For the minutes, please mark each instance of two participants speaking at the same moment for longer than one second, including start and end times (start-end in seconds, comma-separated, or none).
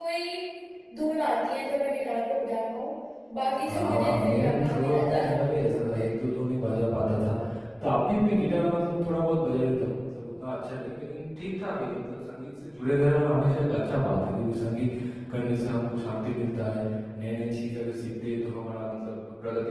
3.7-5.2